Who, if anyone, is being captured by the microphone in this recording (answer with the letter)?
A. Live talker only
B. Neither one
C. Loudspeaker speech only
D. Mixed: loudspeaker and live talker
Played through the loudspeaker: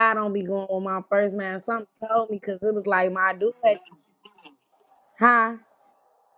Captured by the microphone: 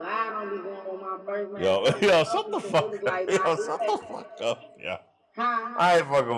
D